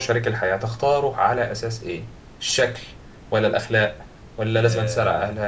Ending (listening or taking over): listening